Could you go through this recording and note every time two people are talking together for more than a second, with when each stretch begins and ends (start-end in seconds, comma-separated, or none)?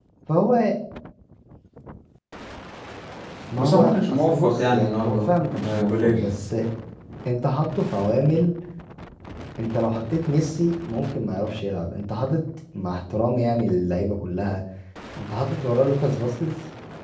3.6-6.2